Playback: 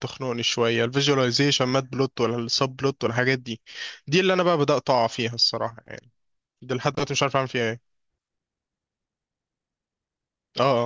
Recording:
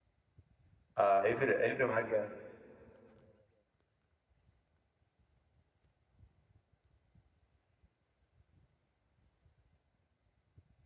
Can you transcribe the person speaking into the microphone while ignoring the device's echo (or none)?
آه، هيفرق هيفرق معاك جامد